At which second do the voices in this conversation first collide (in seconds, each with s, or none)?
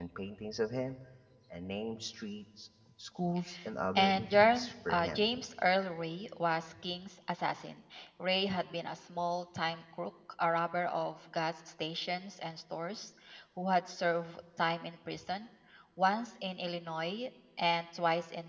4.0 s